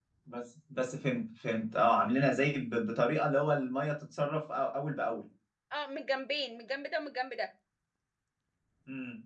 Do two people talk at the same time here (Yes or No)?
No